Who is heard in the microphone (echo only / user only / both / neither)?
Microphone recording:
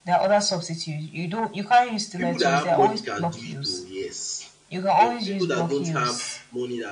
both